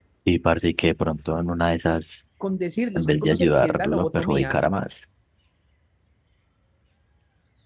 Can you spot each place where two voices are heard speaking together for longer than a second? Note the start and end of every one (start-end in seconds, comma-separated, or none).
3.0-4.6